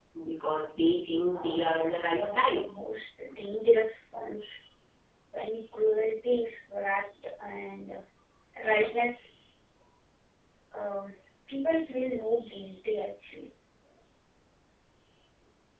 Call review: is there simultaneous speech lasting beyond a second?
Yes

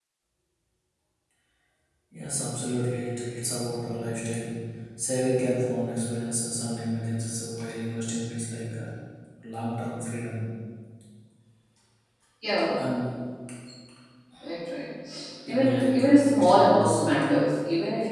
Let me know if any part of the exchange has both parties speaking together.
Yes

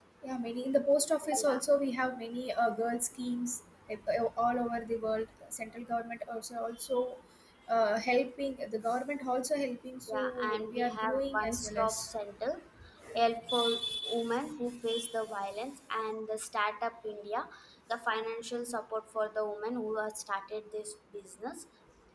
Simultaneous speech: Yes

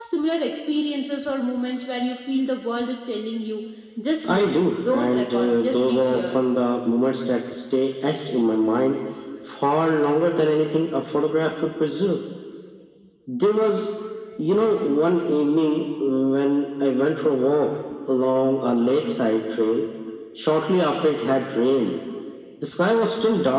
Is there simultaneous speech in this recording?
Yes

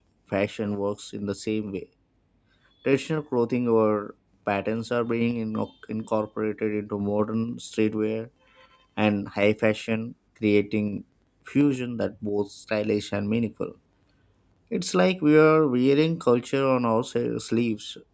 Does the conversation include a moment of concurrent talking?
No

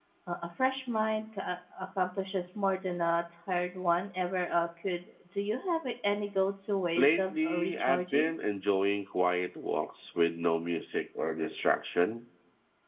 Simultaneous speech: Yes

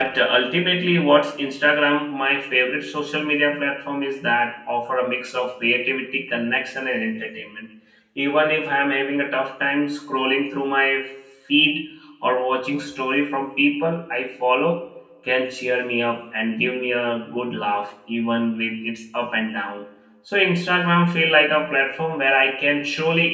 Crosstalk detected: No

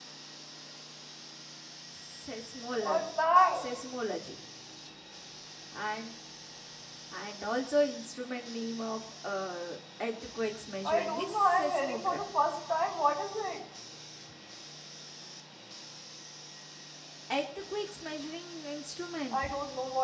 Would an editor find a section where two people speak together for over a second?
Yes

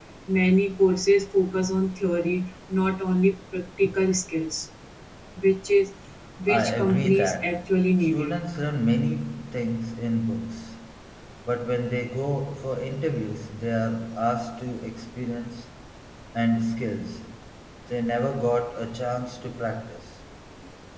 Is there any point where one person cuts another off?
Yes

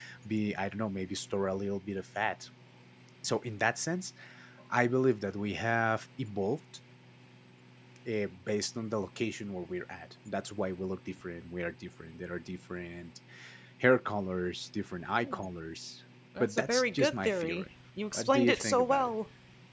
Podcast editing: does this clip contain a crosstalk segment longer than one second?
Yes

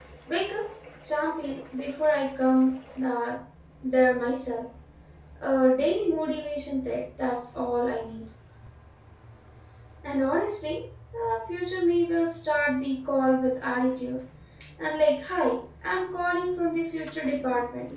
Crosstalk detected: No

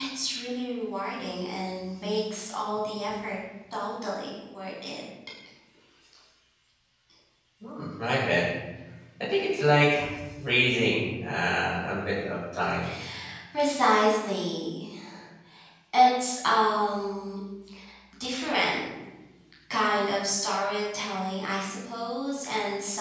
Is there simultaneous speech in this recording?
No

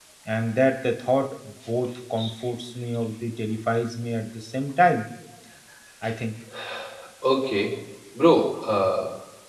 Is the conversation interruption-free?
Yes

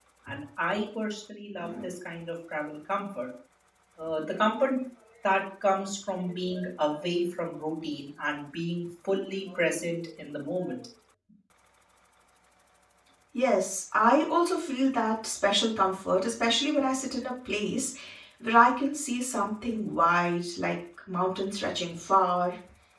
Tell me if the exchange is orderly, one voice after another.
Yes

